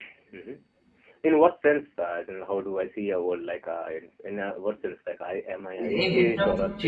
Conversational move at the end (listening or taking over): taking over